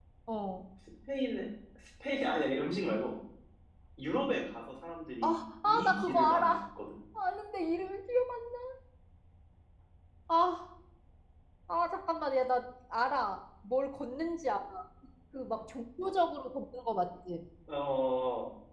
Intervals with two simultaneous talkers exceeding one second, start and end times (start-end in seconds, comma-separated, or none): 5.2-6.6